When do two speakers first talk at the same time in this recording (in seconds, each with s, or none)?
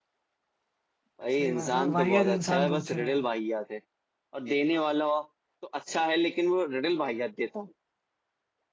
1.4 s